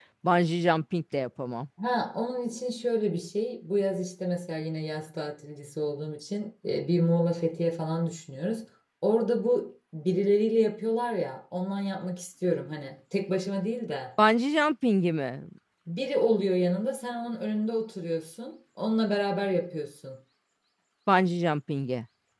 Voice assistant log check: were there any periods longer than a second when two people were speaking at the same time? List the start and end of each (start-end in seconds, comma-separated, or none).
none